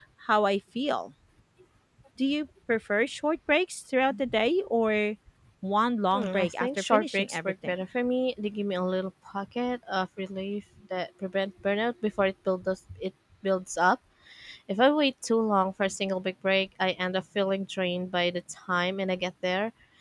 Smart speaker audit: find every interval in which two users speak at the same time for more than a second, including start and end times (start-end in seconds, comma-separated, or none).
6.1-7.7